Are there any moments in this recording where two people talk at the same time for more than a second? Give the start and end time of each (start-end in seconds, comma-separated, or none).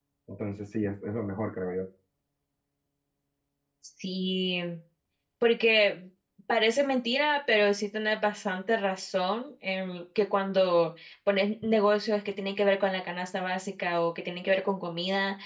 none